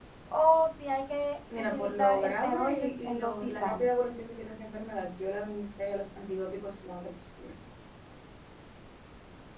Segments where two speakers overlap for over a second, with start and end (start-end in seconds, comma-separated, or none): 1.7-3.8